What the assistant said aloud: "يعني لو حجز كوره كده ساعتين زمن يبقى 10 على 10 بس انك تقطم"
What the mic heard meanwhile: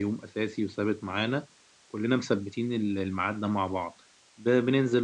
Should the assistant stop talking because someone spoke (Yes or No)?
Yes